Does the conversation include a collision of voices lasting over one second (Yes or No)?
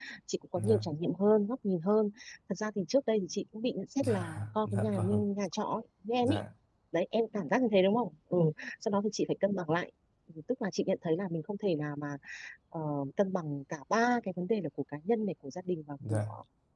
Yes